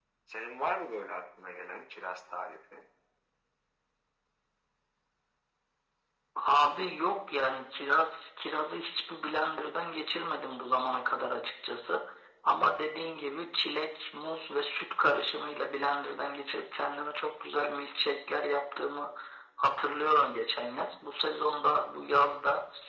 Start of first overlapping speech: none

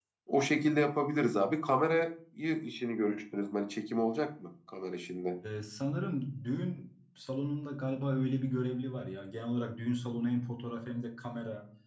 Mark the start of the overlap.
none

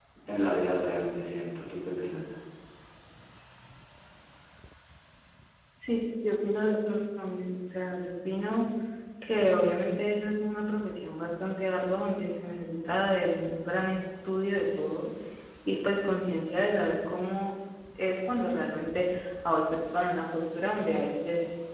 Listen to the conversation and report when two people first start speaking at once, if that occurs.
none

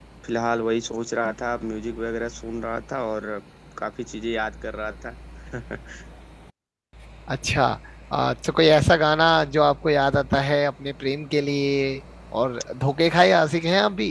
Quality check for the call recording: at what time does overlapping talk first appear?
none

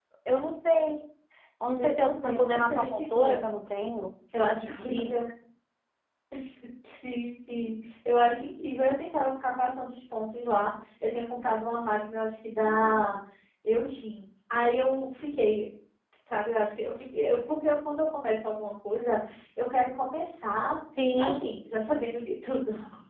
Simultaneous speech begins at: 1.8 s

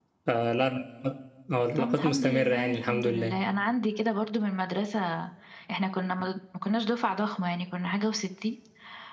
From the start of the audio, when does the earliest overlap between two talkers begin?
1.8 s

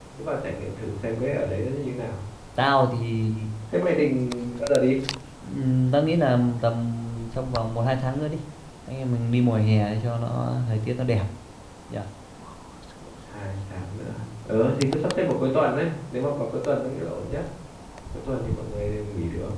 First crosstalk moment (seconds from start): none

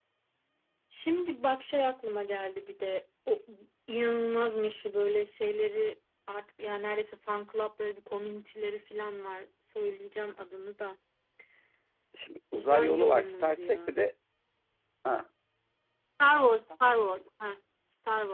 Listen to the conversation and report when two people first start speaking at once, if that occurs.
12.6 s

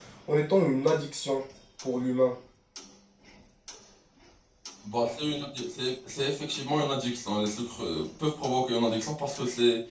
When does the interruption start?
none

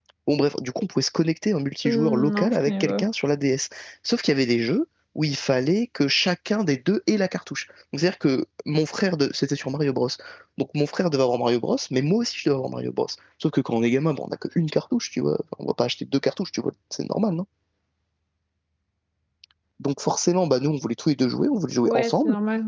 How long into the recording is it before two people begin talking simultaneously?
1.9 s

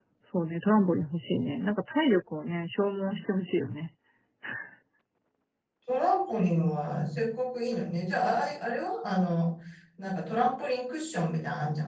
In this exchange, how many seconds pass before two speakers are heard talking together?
none

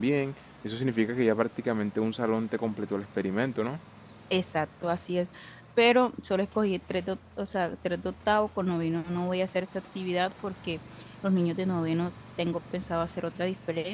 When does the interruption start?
none

